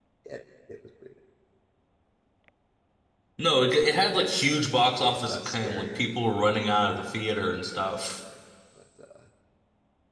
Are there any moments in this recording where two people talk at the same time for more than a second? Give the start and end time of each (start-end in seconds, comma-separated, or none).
5.0-6.4